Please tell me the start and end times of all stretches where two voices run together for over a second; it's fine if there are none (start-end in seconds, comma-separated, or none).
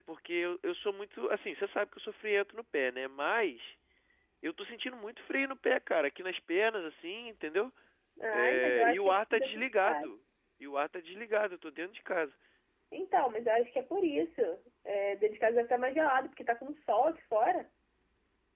8.3-10.1